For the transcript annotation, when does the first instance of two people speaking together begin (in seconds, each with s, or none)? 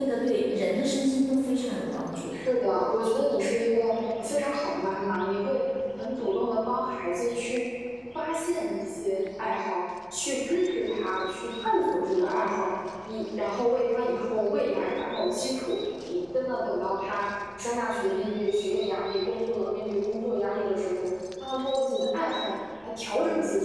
none